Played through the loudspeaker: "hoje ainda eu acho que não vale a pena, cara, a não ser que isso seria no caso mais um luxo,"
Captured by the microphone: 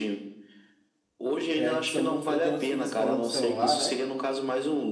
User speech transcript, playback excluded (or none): É, que são muito. Tem outros que você coloca o celular, né?